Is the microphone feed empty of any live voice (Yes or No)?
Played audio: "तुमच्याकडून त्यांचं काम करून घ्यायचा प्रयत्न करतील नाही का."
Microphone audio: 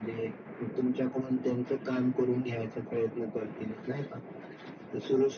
Yes